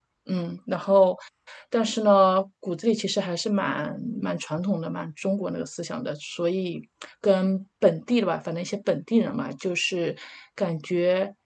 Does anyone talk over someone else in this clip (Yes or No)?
No